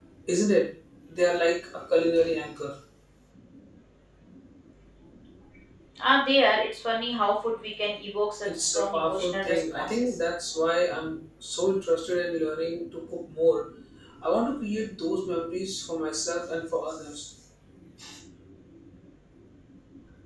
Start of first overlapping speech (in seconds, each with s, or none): 8.4 s